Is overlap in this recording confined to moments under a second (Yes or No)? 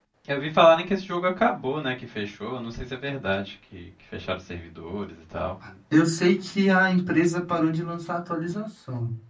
Yes